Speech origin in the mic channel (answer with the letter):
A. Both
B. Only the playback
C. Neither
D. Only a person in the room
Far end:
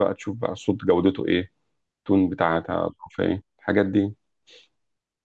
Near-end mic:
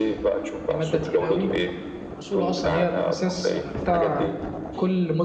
A